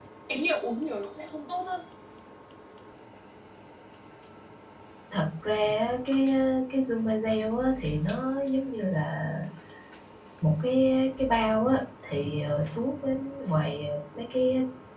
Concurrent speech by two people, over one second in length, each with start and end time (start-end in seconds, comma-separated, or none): none